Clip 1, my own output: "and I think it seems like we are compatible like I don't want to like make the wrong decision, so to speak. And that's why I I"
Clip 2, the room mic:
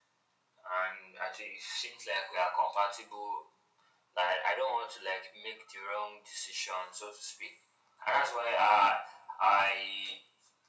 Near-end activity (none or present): none